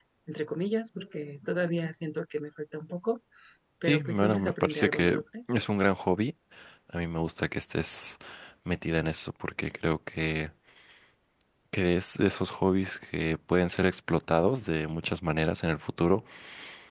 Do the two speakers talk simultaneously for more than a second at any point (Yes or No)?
Yes